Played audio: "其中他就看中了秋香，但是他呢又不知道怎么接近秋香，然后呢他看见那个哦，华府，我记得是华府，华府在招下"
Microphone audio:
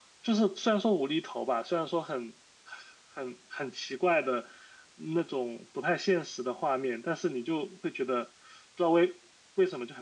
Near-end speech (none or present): present